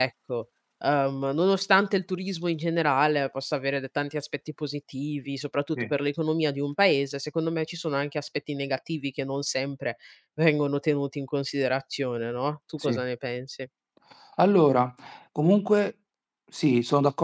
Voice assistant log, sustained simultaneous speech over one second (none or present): none